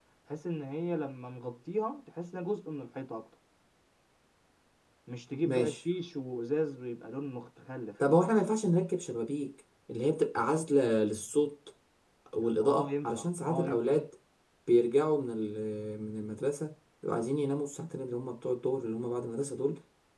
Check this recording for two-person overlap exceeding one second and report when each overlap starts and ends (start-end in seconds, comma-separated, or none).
12.6-13.8